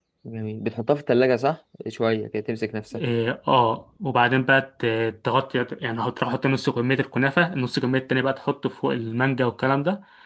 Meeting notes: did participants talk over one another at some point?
No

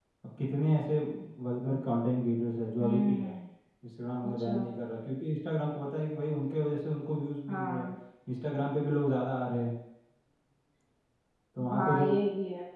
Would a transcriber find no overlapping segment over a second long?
Yes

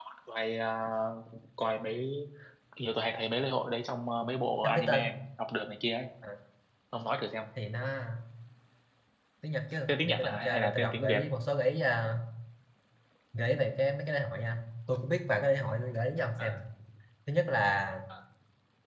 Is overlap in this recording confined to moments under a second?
No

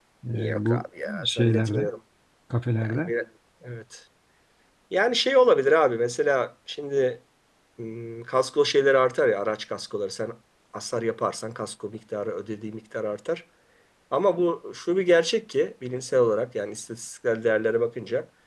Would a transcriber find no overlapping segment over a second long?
No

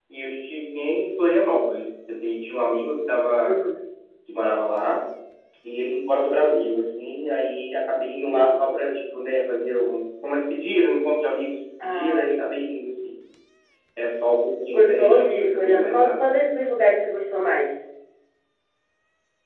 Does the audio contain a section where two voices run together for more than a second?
Yes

